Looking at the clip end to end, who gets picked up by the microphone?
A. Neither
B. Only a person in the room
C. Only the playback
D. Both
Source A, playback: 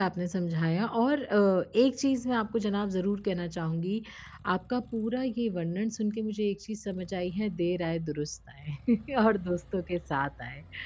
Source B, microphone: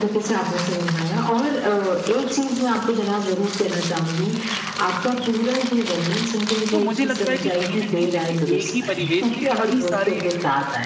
D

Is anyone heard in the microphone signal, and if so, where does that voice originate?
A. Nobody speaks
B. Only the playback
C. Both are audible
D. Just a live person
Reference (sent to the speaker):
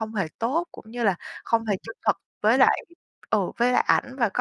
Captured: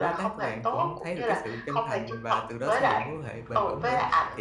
C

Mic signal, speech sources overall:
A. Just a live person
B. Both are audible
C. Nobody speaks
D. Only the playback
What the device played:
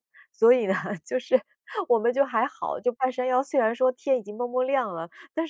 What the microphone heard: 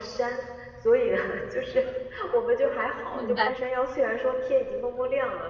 B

